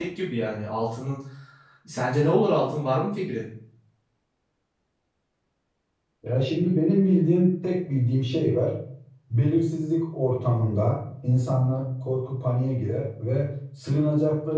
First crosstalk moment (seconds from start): none

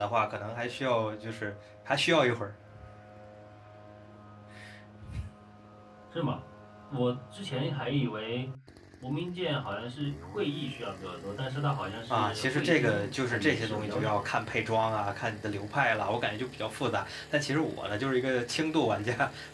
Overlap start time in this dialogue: 12.1 s

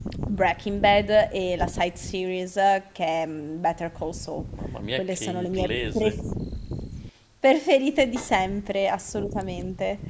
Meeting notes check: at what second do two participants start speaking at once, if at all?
5.0 s

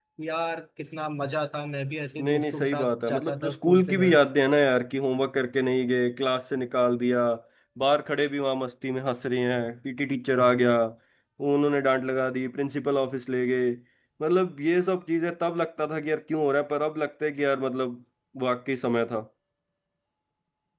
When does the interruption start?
2.2 s

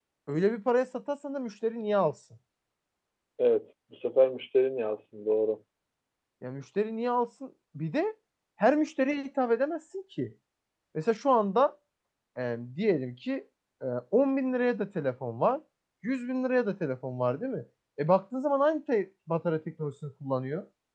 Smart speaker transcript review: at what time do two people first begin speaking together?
none

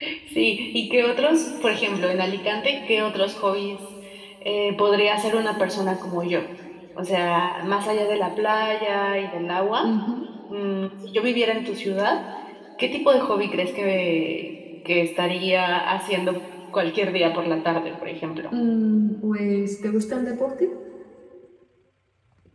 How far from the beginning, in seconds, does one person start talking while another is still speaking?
none

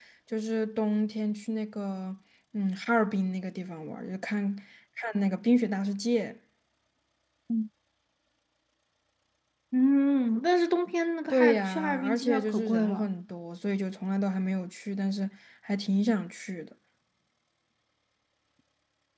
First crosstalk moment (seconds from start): 11.3 s

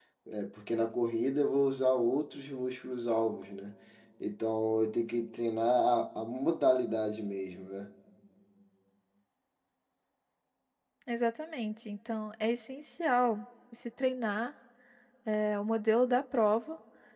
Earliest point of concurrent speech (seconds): none

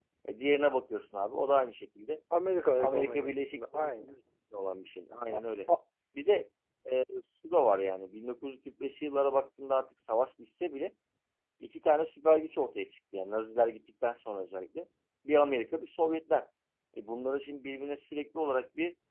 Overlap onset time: 2.8 s

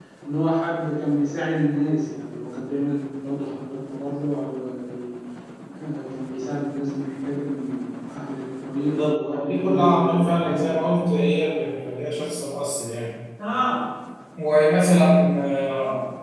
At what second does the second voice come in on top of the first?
8.8 s

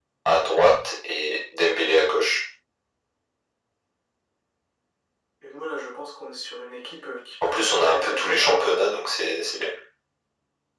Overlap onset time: 7.4 s

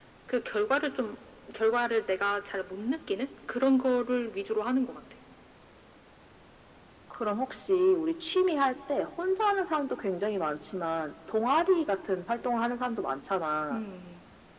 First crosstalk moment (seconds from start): none

